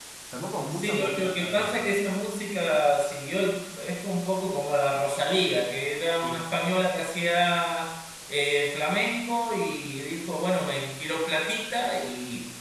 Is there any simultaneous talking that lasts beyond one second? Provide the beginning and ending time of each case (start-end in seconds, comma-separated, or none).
0.7-1.9